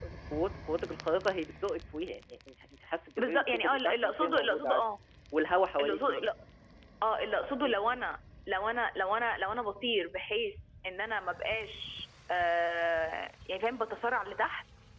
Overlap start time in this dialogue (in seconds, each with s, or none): 3.2 s